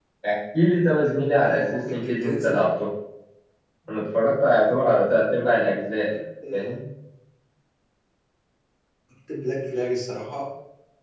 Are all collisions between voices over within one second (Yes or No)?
No